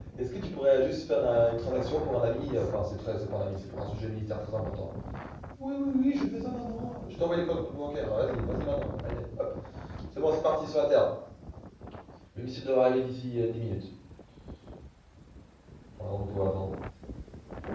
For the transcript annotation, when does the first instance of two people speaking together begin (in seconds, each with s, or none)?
none